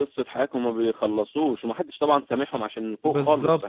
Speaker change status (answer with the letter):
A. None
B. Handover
B